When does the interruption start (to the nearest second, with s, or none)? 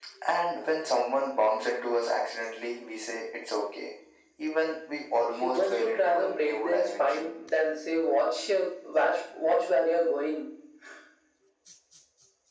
5 s